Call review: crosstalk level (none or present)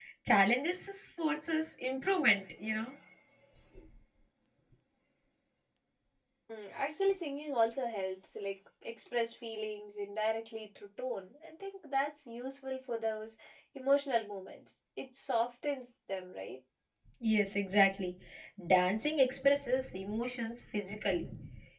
none